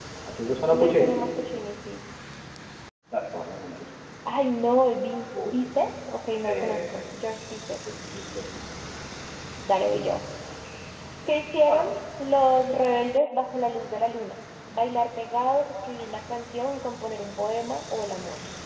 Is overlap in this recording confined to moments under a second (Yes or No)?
Yes